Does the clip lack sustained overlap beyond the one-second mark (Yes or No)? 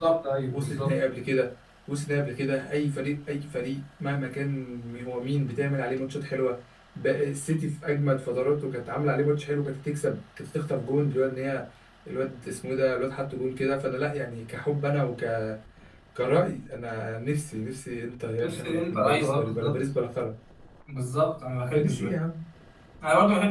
No